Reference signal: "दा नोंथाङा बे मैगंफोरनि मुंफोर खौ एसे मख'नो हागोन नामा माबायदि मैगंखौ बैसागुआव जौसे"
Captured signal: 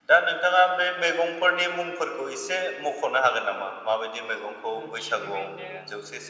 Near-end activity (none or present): present